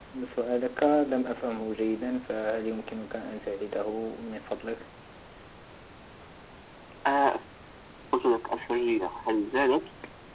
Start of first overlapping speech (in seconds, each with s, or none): none